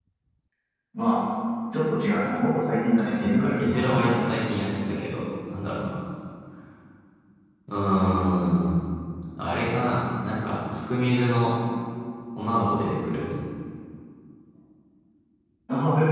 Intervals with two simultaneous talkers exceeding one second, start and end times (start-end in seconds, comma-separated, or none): 3.0-4.3